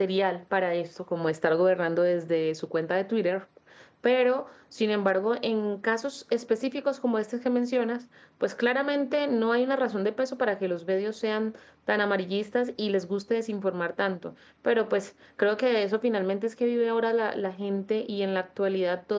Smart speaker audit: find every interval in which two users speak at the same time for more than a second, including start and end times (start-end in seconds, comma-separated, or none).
none